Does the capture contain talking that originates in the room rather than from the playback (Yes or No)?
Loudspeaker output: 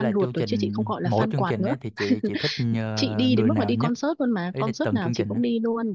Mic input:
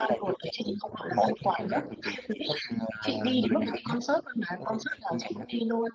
No